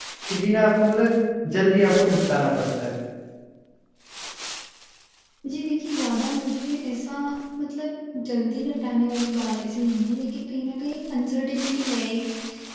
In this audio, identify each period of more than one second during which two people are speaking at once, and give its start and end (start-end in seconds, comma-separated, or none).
none